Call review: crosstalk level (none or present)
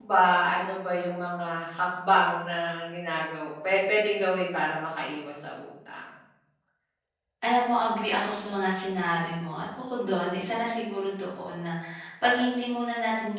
none